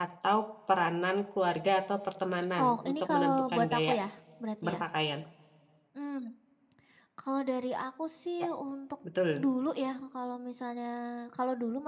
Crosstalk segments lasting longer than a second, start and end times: 2.6-4.0

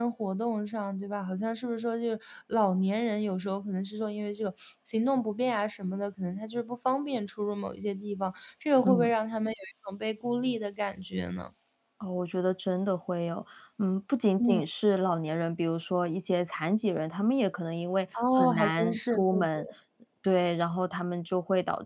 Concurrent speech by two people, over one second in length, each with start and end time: 18.4-19.6

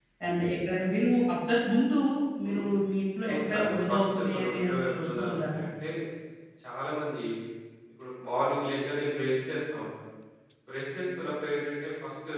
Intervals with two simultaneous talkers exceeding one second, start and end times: 3.2-5.6

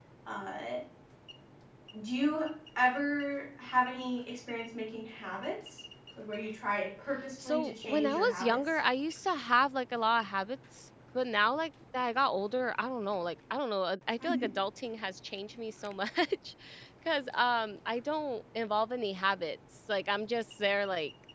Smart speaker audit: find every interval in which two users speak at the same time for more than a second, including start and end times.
7.4-8.8

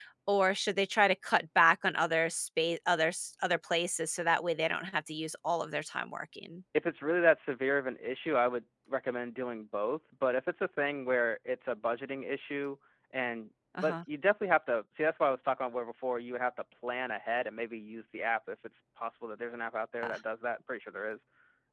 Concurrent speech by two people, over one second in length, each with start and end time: none

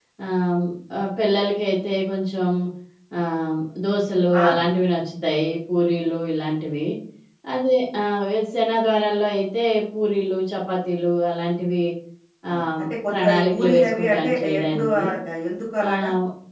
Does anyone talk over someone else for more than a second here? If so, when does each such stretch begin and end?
12.5-15.0

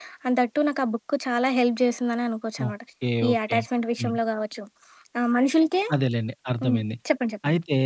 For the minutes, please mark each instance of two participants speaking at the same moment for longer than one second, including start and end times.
none

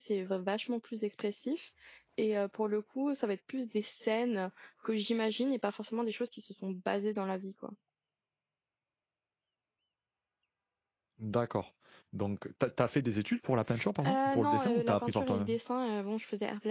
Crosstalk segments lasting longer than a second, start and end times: 14.1-15.6

